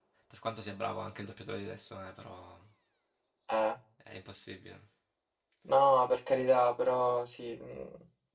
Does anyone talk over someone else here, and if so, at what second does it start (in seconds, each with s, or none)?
none